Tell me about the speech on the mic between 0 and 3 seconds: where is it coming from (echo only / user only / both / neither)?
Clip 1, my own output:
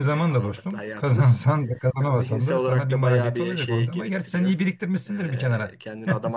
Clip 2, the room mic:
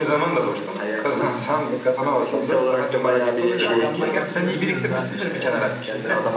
echo only